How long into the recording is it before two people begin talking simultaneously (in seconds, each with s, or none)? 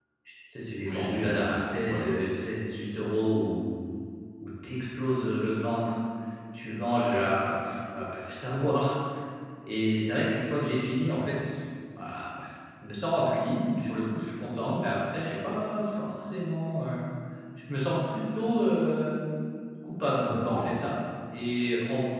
0.9 s